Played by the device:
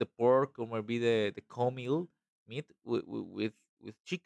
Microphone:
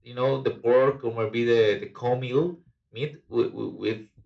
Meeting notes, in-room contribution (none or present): none